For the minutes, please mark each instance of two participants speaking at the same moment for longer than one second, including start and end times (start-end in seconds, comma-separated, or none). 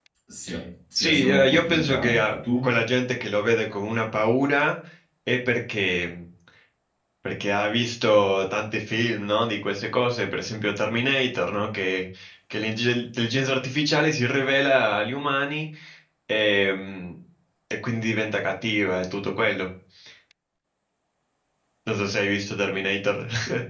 0.9-2.7